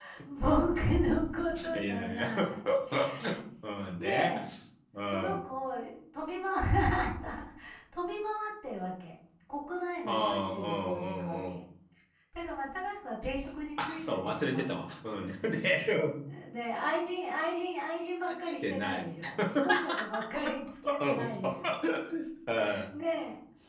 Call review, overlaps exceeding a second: present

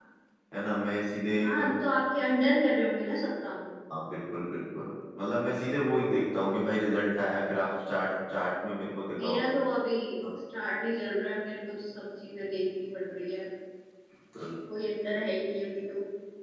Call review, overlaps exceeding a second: none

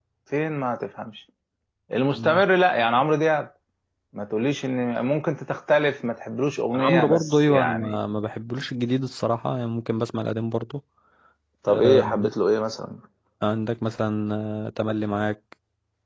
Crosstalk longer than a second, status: present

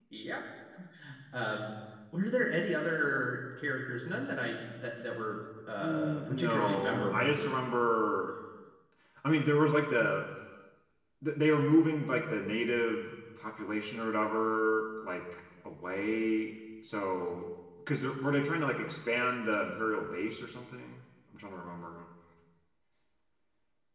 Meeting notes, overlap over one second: present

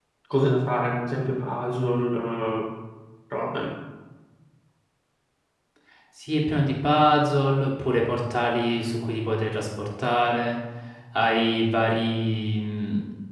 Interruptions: none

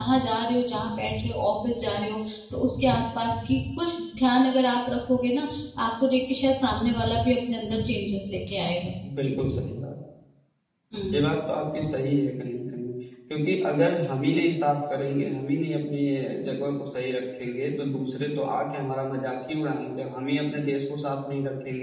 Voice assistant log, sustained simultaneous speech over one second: none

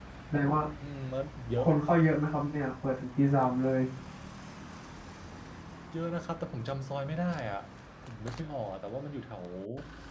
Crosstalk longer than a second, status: none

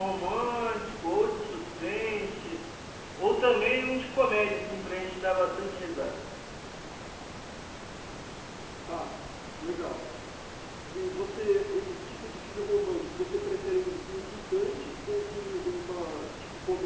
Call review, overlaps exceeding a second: none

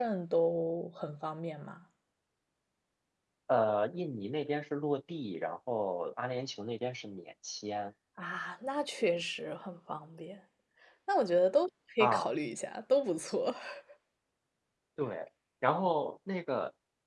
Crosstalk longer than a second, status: none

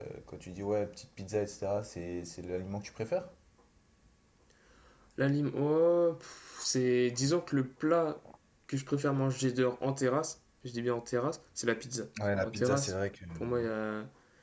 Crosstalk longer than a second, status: none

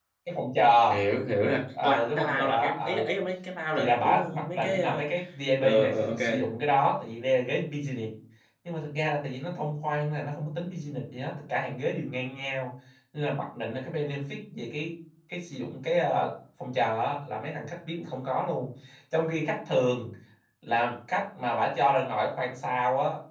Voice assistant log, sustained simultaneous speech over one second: present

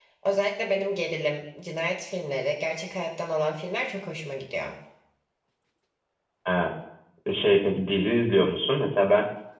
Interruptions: none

